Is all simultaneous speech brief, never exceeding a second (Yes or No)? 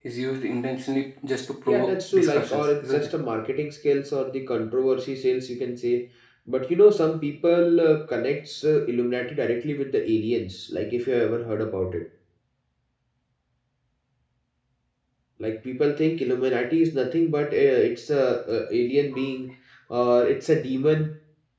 No